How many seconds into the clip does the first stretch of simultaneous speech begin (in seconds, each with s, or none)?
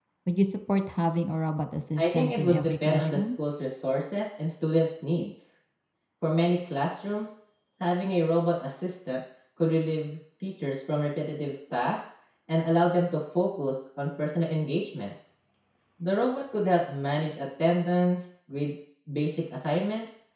2.0 s